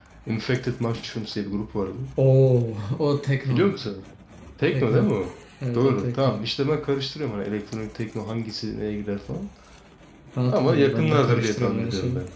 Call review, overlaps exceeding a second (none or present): present